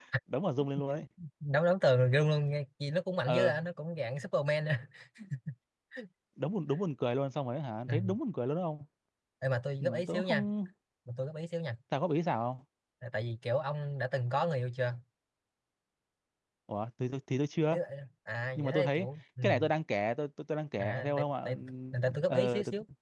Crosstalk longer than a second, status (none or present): present